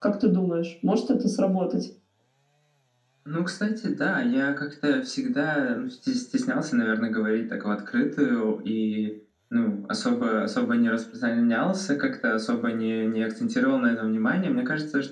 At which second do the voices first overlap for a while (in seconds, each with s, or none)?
none